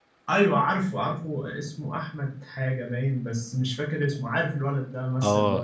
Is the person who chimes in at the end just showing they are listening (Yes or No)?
No